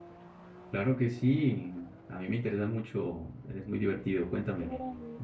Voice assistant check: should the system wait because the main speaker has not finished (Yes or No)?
No